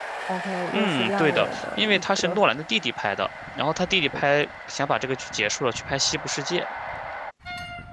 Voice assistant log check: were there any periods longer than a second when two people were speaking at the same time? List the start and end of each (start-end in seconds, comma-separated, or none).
0.7-2.4